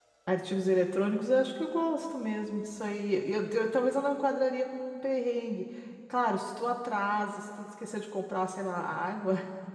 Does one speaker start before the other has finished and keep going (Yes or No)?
No